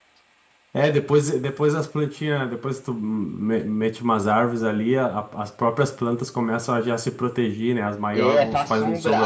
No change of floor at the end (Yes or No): No